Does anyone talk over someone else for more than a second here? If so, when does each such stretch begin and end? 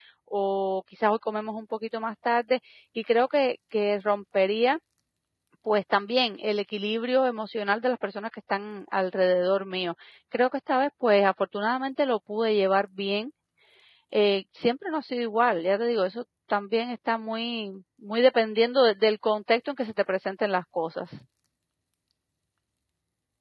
none

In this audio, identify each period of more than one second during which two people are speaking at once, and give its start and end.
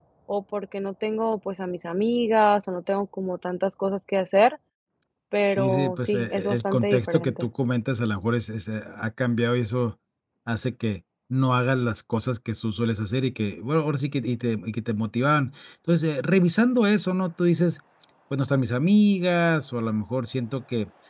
5.5-7.5

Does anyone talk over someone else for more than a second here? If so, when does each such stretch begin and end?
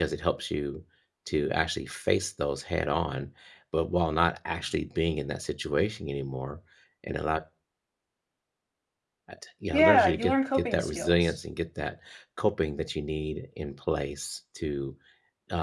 9.7-11.4

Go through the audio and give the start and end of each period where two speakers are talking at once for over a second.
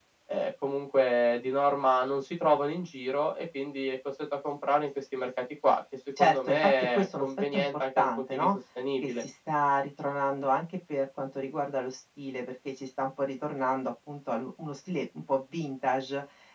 6.2-8.6

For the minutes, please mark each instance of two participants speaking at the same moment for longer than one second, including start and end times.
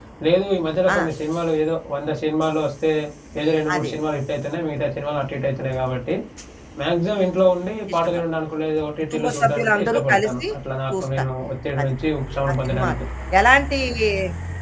9.1-10.5

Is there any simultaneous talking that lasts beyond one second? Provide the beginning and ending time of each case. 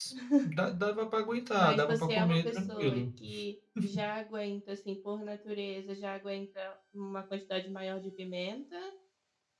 1.6-3.0

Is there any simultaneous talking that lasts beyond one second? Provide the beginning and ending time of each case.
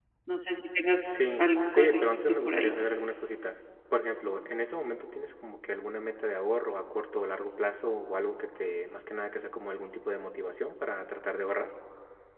1.1-2.7

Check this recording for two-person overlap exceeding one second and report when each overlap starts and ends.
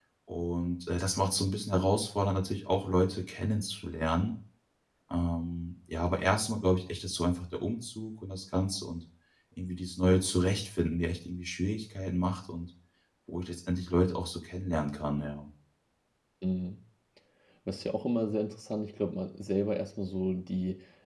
none

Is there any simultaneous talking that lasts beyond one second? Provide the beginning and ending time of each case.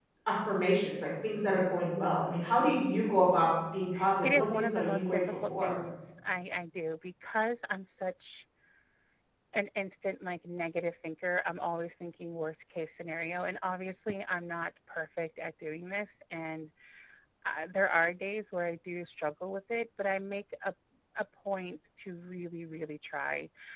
4.2-5.8

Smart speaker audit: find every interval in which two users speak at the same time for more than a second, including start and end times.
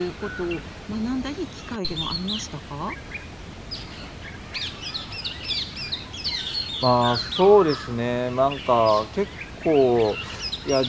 none

